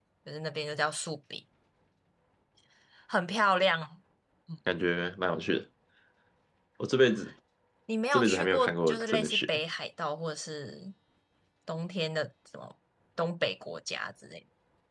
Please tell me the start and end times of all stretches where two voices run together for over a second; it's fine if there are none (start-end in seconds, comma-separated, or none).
8.1-9.4